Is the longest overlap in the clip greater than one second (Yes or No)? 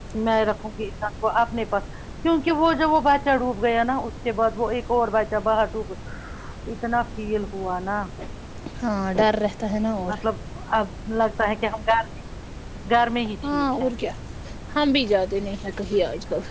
No